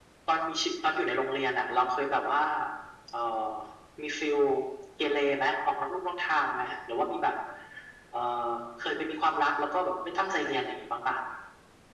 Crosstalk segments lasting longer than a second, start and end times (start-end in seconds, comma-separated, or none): none